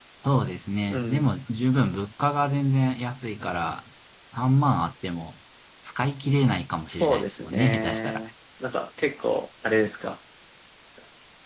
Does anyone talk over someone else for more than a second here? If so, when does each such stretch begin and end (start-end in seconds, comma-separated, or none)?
7.0-8.2